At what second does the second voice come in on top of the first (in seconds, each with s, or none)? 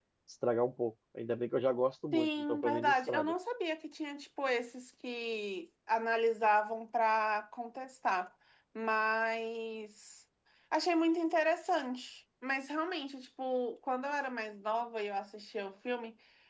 2.1 s